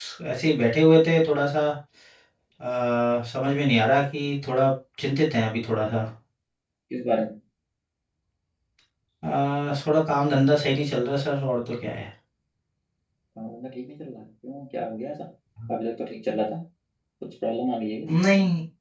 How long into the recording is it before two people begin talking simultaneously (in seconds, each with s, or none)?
none